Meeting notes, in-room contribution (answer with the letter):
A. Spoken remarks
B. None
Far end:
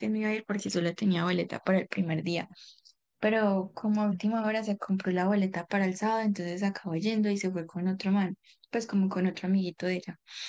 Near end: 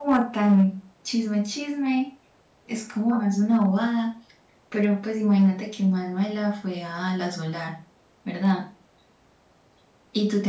A